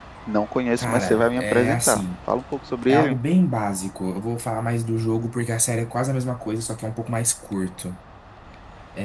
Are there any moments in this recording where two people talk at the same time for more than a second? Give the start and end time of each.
0.8-2.0

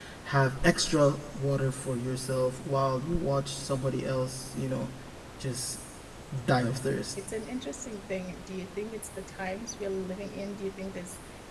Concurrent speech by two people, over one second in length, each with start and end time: none

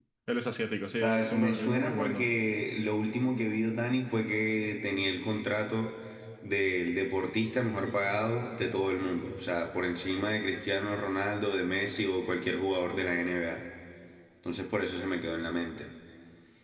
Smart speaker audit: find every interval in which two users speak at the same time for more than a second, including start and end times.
1.0-2.3

